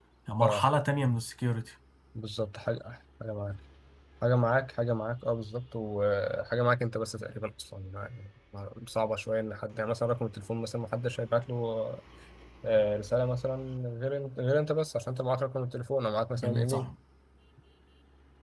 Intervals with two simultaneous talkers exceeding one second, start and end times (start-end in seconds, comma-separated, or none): none